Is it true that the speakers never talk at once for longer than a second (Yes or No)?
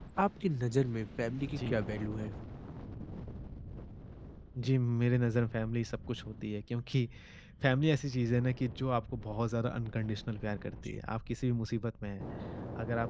Yes